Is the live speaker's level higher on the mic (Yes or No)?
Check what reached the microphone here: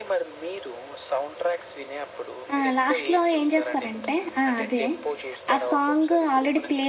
Yes